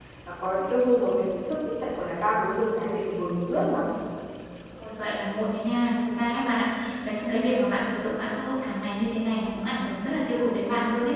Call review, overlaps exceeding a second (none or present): none